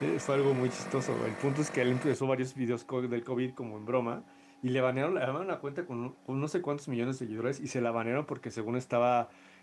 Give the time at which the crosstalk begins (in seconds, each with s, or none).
none